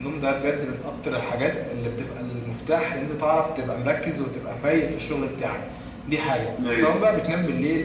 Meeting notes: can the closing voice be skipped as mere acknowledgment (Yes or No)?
Yes